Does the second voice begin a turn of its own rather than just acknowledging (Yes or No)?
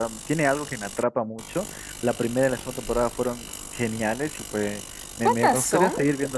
No